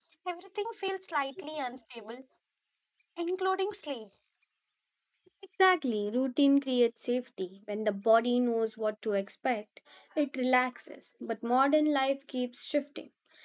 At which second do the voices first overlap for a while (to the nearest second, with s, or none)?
none